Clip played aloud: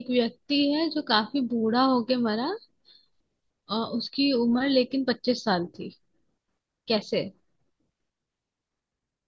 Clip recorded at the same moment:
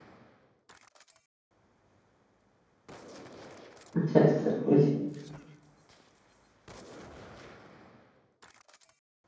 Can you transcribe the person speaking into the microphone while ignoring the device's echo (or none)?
अच्छा अच्छा सब कुछ